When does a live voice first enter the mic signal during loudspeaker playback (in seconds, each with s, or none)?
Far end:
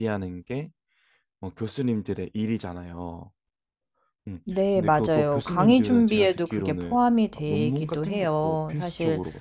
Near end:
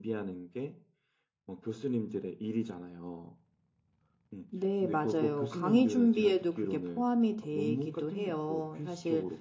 none